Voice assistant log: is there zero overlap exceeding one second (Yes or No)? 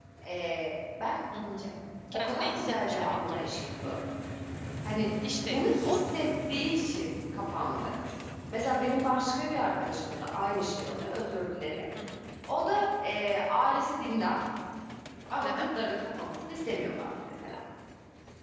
No